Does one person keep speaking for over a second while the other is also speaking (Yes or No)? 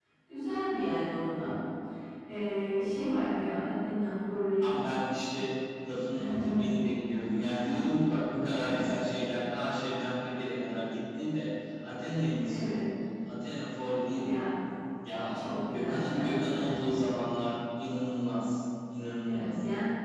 Yes